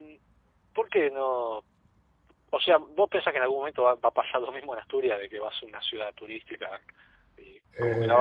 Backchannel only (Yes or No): Yes